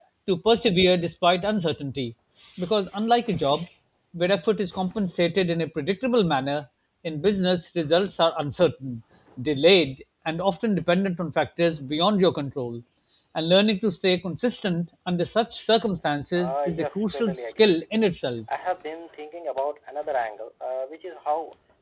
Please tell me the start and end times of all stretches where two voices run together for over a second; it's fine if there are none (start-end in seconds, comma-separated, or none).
16.4-18.1